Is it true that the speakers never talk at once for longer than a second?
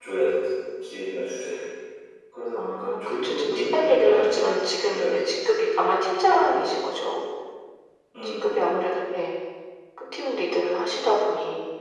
No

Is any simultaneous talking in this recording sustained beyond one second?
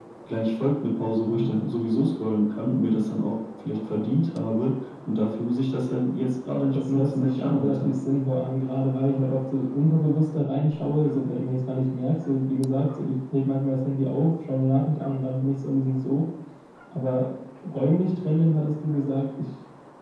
Yes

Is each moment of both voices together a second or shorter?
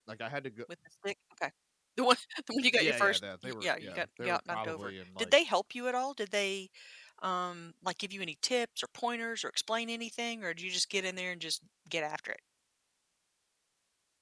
No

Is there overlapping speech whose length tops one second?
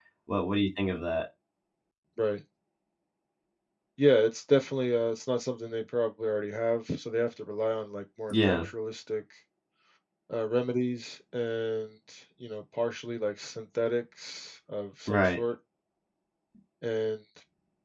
No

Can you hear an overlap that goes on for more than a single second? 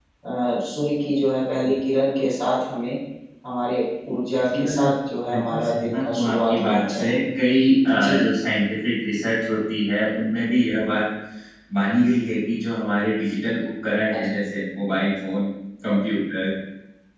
Yes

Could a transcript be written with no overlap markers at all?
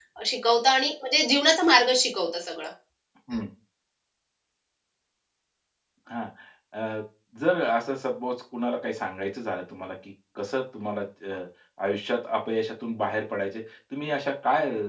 Yes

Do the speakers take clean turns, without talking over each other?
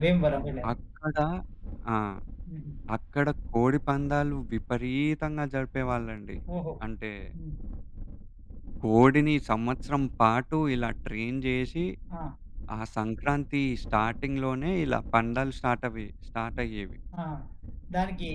Yes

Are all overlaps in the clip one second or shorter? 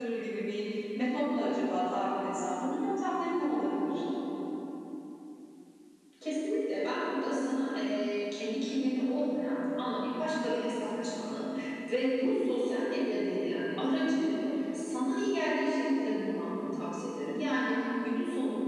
Yes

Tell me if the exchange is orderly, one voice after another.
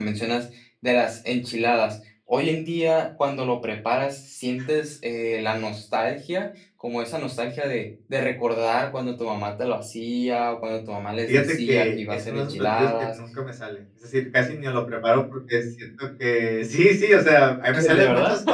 No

